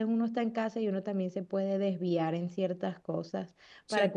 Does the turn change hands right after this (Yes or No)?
No